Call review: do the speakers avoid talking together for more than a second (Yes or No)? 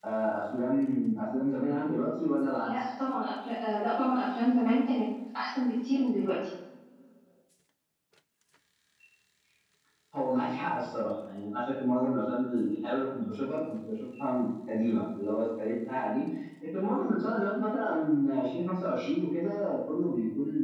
Yes